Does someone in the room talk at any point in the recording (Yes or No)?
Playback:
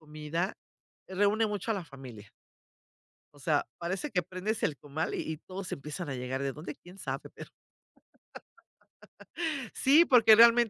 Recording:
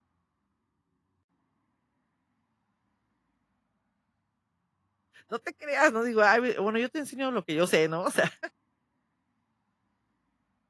Yes